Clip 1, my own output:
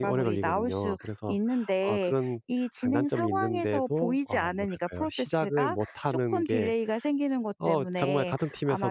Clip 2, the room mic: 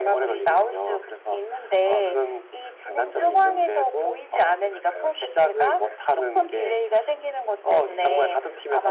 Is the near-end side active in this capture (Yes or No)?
Yes